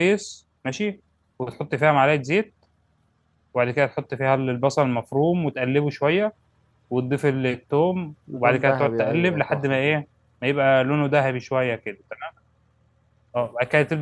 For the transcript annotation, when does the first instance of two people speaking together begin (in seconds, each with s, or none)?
8.3 s